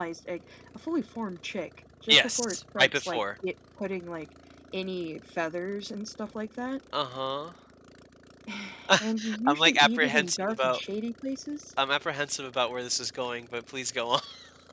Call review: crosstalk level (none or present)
present